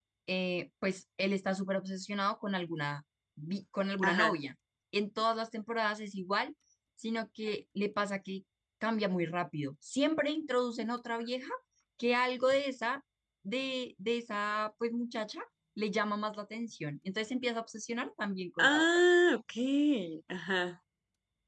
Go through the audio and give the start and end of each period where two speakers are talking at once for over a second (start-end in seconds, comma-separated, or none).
none